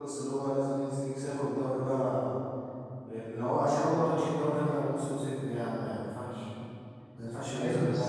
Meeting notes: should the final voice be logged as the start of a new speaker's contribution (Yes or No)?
Yes